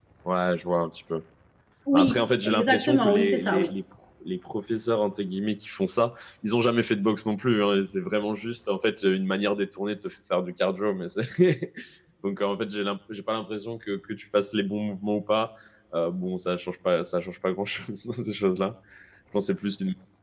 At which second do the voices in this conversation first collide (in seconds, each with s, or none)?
1.9 s